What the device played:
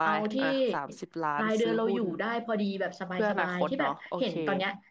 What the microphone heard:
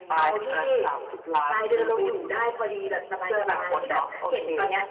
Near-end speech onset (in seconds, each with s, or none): none